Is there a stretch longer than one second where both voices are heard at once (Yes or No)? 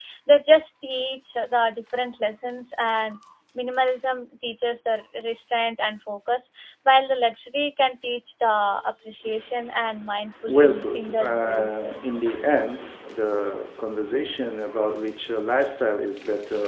Yes